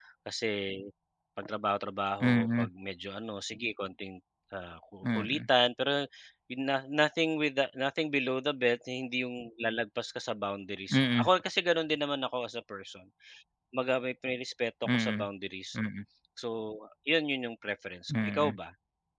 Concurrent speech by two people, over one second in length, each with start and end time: none

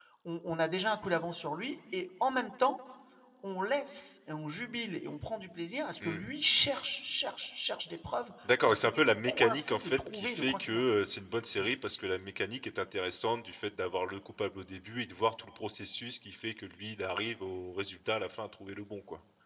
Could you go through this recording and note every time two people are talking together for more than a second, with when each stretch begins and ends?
8.6-10.8

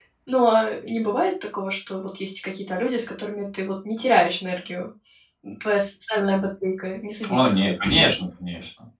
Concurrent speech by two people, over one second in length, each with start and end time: none

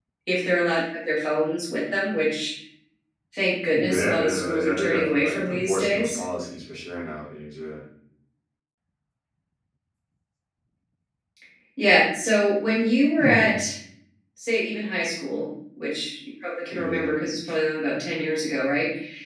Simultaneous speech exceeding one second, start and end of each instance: 3.7-6.2

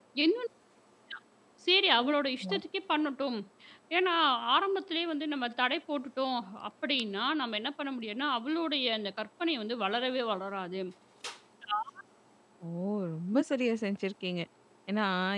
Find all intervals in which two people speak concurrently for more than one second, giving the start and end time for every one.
none

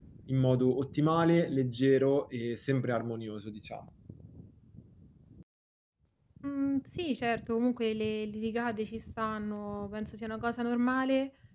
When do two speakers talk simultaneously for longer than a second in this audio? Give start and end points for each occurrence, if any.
none

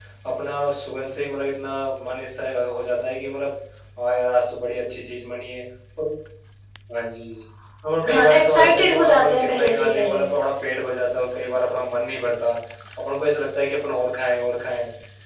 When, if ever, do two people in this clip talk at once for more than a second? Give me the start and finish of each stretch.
8.1-10.2

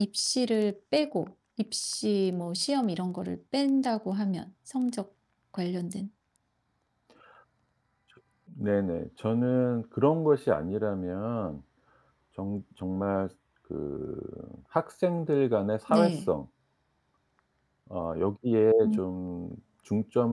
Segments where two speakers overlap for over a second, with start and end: none

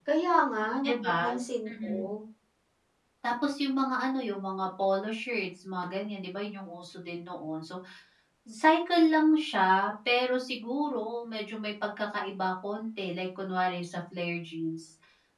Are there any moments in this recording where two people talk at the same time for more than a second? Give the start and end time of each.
none

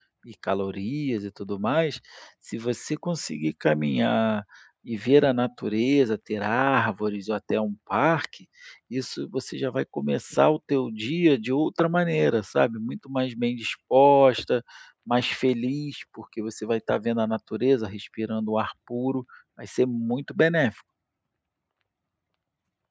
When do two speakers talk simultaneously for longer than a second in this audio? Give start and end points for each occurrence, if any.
none

